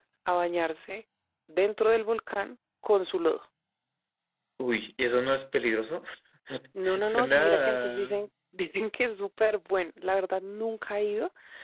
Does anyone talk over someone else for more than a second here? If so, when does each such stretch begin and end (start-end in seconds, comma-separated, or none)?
7.0-8.2